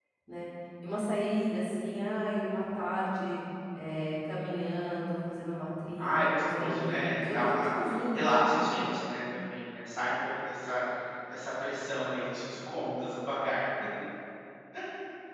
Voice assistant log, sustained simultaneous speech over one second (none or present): present